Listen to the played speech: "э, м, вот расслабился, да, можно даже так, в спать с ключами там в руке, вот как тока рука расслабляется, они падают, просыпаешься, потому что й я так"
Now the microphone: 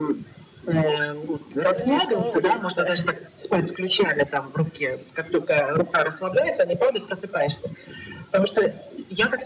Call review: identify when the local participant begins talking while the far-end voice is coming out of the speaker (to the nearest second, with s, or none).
2 s